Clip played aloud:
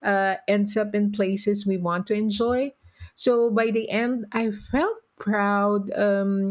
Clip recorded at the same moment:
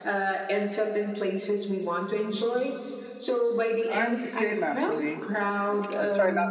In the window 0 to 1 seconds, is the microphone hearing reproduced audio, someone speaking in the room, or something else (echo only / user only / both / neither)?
echo only